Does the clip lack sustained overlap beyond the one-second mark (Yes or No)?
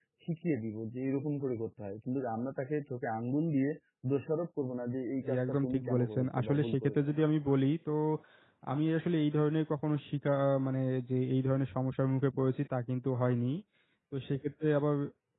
No